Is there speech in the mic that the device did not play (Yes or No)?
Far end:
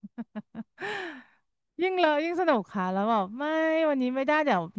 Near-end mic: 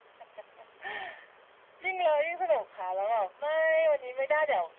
No